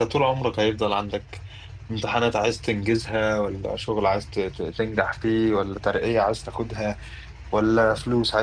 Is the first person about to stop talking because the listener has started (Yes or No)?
No